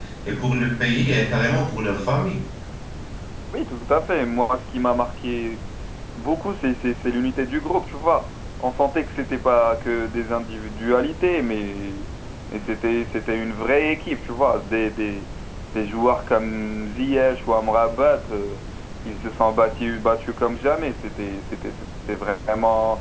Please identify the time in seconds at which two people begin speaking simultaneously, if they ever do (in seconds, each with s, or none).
none